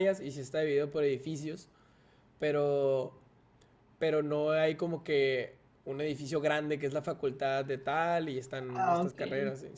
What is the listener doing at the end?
listening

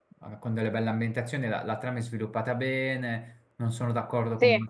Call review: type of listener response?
listening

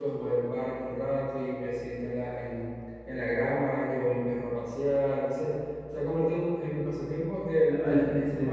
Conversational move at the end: taking over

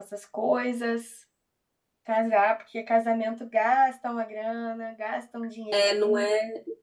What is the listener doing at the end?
taking over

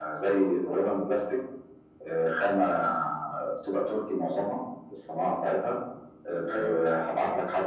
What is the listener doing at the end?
listening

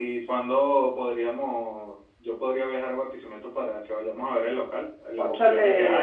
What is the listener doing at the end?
listening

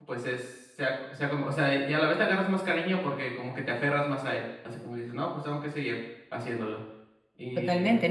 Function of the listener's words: taking over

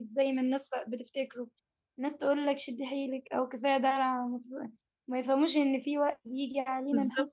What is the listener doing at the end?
listening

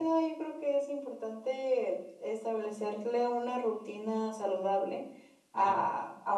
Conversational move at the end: listening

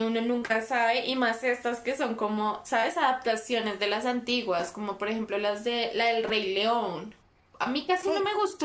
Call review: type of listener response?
listening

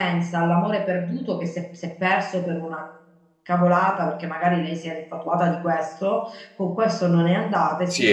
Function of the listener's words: listening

